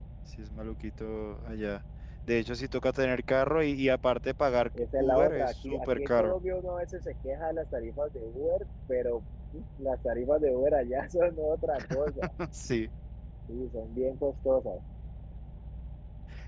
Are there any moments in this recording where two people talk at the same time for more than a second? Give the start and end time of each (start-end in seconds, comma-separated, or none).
5.0-6.3